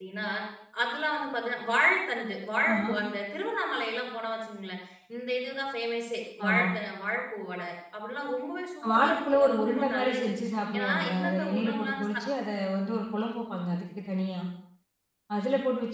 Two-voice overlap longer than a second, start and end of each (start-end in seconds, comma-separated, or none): 8.9-10.3, 10.7-12.2